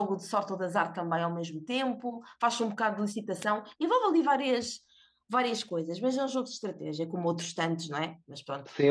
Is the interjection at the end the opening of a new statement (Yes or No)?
Yes